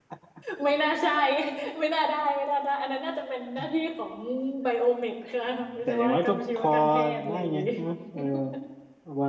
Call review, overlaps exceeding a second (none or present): present